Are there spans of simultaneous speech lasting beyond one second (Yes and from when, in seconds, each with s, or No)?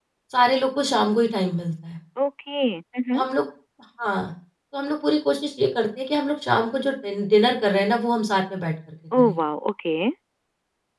No